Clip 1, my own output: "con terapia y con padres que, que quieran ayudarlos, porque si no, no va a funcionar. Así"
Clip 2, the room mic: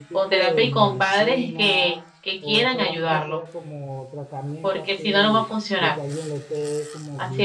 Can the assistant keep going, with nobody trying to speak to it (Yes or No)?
No